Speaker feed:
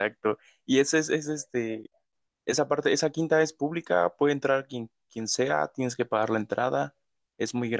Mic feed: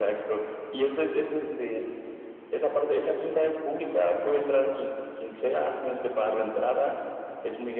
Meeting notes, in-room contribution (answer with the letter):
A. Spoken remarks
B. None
B